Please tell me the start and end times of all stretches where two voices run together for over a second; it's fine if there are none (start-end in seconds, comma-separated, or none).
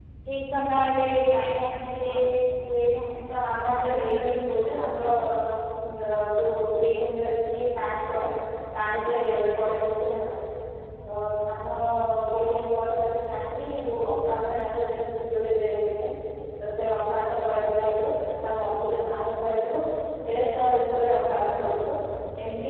3.7-5.0